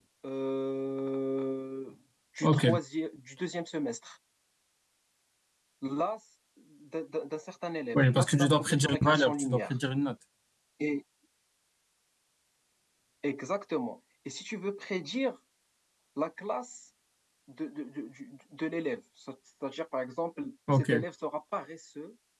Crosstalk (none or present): present